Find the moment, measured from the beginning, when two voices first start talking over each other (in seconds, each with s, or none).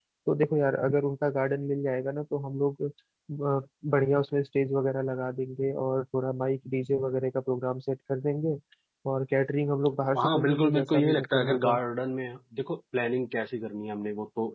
10.0 s